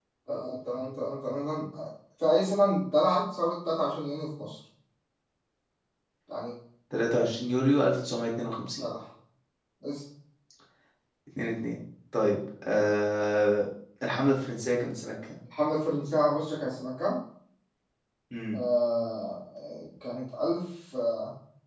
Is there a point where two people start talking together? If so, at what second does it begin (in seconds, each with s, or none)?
none